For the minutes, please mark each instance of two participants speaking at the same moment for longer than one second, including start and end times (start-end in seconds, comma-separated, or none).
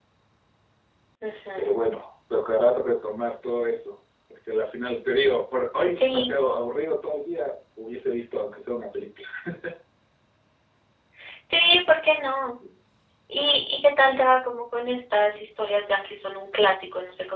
none